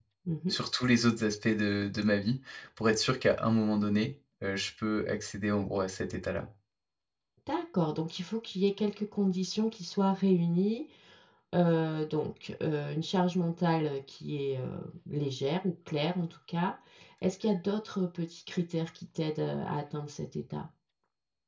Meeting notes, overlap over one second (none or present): none